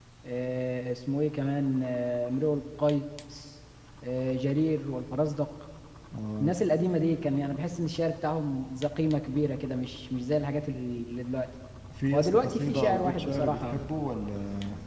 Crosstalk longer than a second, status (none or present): present